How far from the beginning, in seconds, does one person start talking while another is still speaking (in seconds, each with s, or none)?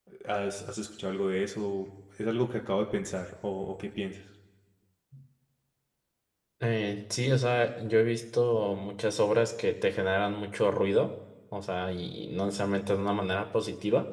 none